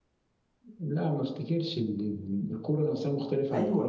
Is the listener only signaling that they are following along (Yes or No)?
No